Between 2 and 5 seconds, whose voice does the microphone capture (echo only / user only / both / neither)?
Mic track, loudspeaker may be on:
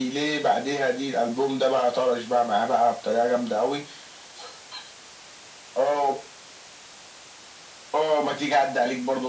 echo only